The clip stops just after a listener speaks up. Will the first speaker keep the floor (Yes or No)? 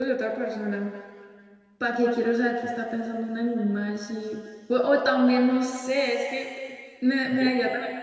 Yes